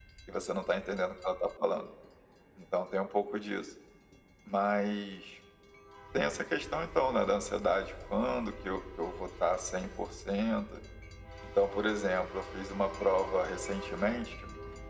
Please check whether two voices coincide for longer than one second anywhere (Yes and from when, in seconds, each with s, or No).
No